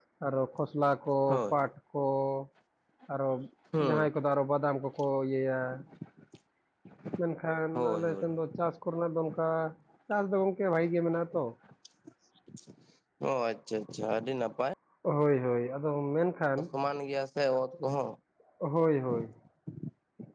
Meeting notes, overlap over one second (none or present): none